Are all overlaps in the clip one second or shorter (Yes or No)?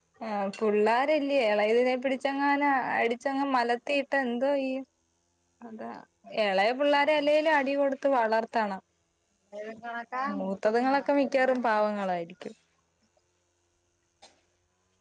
No